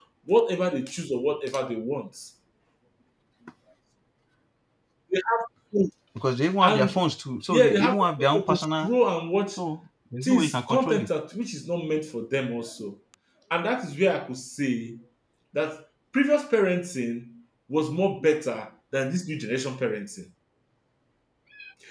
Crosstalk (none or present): present